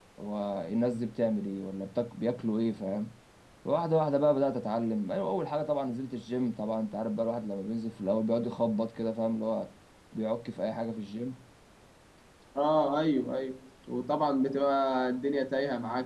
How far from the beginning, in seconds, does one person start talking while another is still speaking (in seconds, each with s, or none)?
none